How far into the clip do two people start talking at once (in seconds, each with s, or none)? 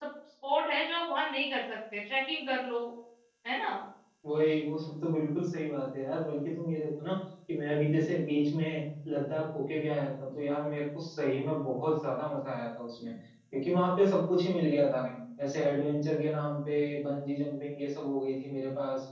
none